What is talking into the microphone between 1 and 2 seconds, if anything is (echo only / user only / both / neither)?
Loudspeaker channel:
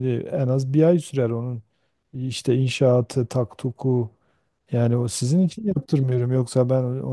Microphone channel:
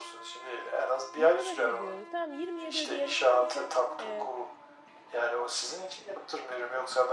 both